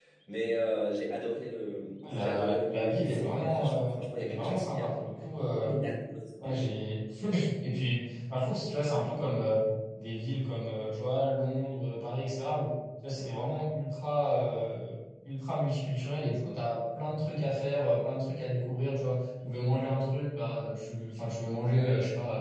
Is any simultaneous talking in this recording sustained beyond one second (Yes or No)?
Yes